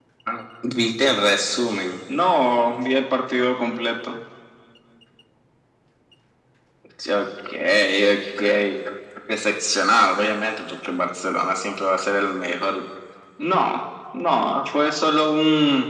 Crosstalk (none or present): none